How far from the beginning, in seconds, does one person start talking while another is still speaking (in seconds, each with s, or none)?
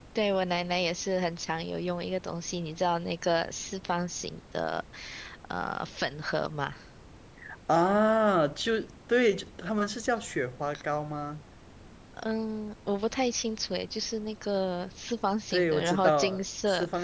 15.5 s